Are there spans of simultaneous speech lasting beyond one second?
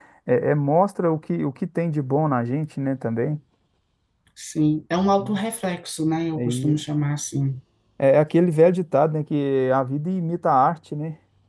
No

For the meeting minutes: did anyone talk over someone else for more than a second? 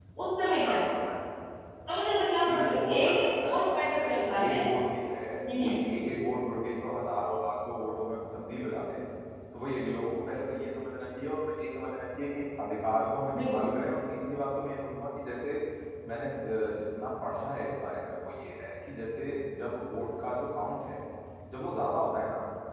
Yes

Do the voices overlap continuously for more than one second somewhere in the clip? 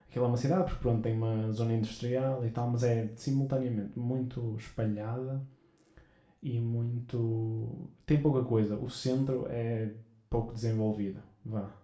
No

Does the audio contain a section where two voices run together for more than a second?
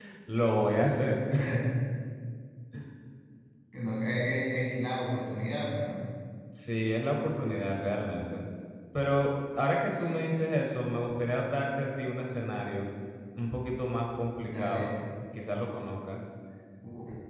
No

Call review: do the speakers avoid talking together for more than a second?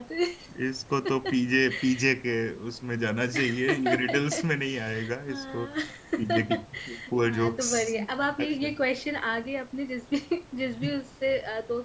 No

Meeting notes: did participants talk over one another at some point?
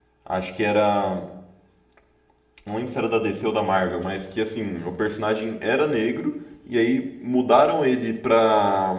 No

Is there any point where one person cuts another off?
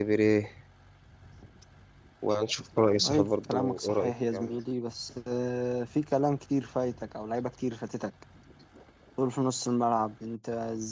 Yes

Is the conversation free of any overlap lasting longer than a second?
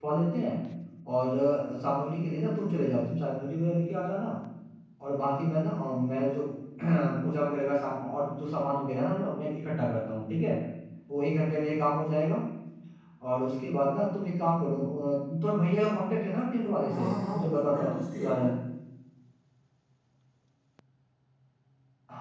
No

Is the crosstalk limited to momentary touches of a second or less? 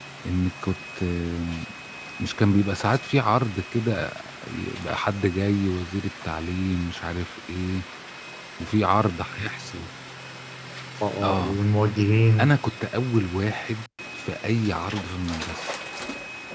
Yes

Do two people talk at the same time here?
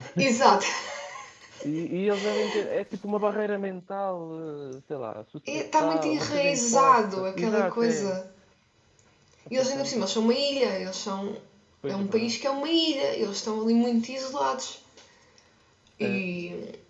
Yes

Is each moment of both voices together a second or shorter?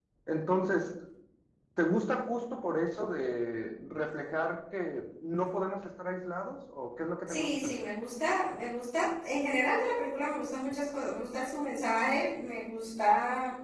Yes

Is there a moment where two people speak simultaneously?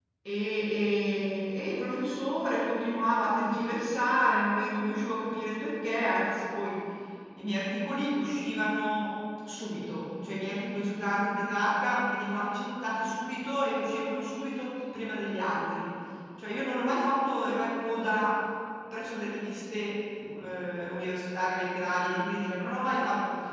No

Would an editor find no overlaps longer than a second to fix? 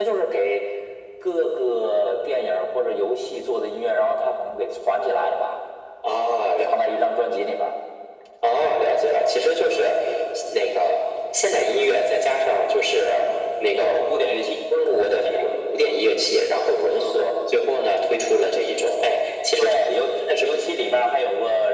Yes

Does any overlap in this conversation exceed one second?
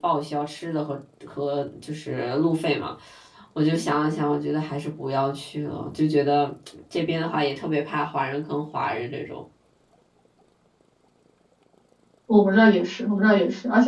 No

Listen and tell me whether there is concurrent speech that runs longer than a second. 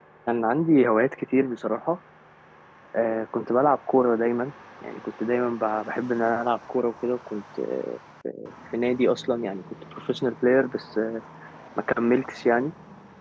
No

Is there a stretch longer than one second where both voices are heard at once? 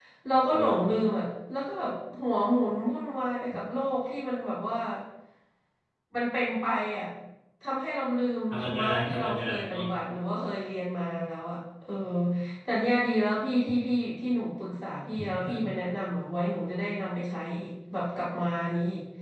Yes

